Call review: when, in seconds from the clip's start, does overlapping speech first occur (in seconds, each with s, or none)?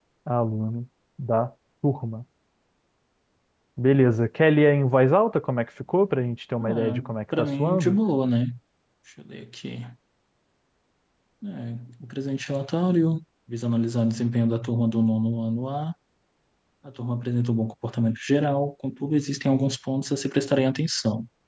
6.6 s